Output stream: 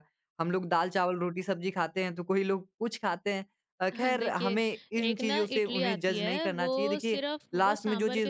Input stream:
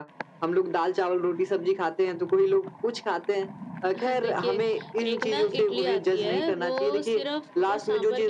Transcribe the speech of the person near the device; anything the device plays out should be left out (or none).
none